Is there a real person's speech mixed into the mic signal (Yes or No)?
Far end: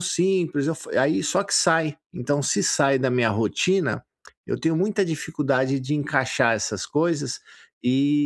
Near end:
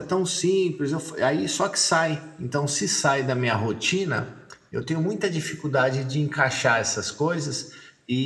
No